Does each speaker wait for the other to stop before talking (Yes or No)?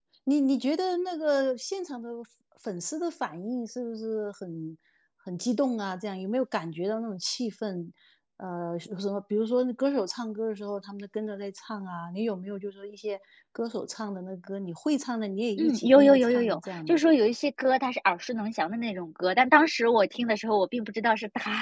No